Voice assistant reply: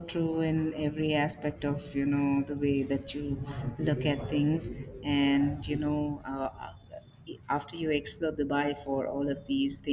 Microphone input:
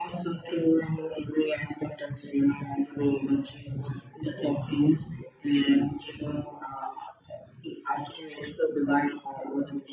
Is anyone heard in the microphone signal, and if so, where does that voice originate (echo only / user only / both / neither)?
echo only